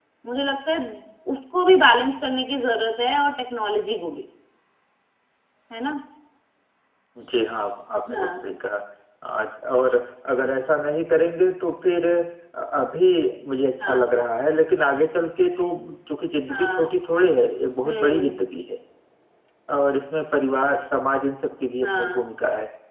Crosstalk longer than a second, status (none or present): none